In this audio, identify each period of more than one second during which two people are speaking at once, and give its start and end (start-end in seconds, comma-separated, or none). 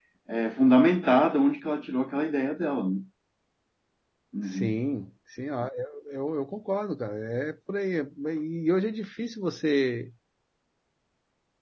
none